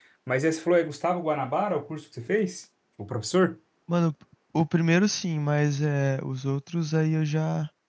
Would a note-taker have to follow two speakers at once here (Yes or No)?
No